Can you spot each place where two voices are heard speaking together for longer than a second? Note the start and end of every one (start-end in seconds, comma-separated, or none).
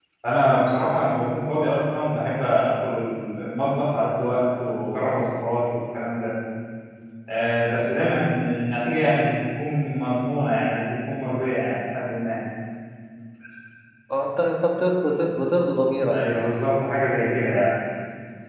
none